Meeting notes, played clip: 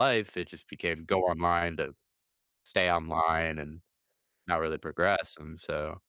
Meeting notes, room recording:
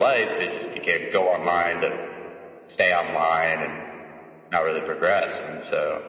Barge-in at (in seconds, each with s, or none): none